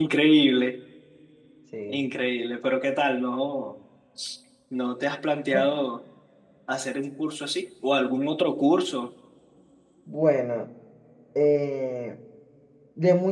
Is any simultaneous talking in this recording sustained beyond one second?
No

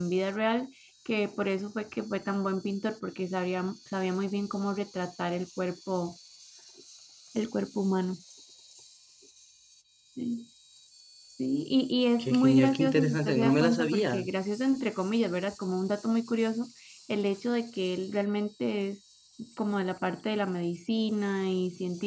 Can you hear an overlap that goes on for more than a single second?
Yes, from 12.2 s

